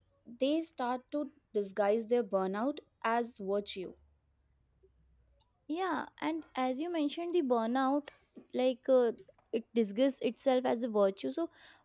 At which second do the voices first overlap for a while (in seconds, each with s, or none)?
none